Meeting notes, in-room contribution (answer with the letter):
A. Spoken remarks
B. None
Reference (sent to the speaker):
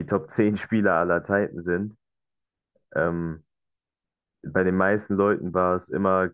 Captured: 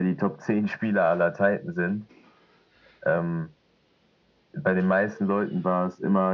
B